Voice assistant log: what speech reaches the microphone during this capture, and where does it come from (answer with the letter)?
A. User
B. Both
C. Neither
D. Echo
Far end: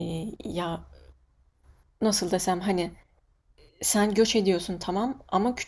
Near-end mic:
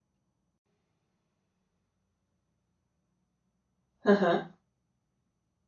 A